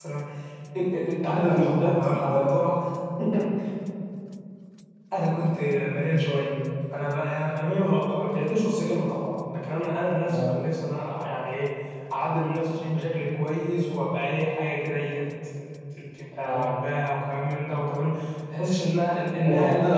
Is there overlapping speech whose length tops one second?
Yes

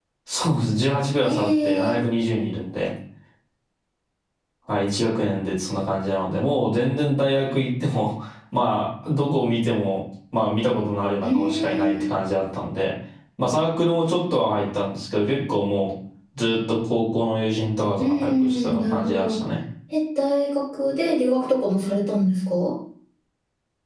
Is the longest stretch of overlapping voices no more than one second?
No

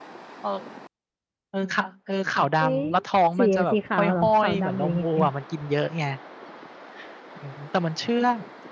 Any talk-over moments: Yes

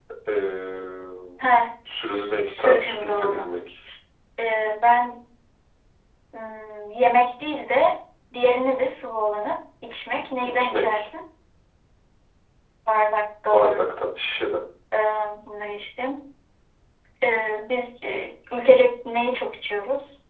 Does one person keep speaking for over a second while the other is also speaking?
Yes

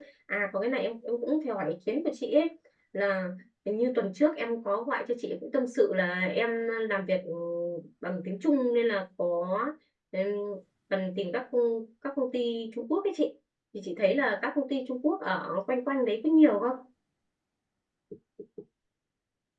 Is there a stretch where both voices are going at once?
No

